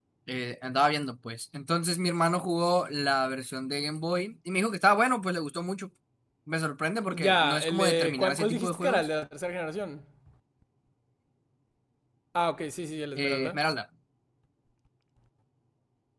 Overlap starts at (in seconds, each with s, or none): 7.1 s